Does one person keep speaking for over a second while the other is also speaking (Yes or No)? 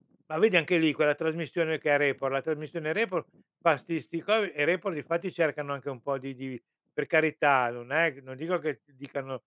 No